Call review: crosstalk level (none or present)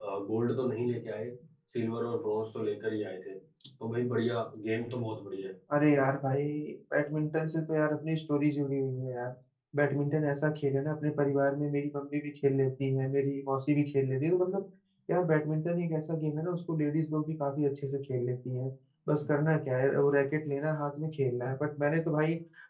none